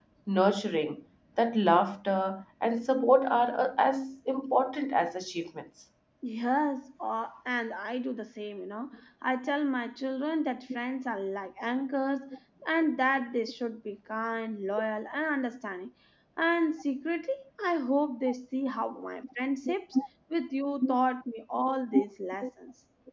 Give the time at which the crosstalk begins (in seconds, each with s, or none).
none